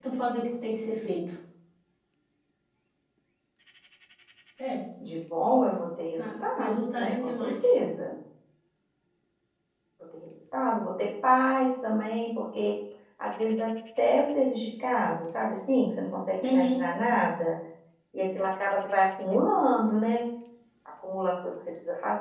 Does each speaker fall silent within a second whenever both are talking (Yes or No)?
No